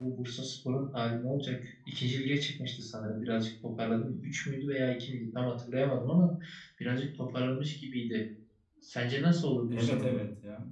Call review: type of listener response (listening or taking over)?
taking over